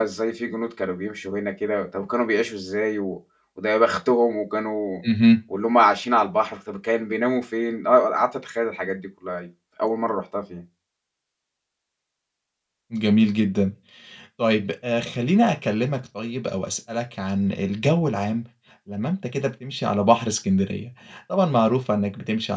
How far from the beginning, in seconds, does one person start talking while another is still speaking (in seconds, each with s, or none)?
none